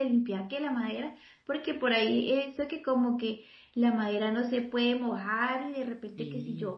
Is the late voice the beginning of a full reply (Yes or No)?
No